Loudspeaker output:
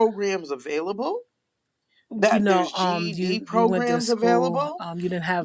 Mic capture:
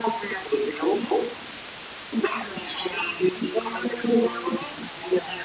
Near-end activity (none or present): none